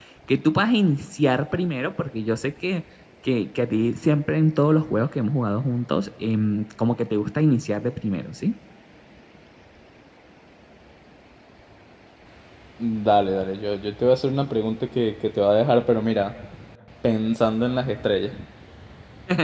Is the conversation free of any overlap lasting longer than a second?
Yes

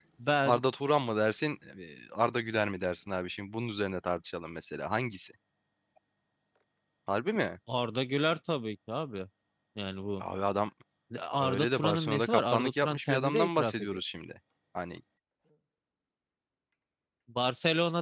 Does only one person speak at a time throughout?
No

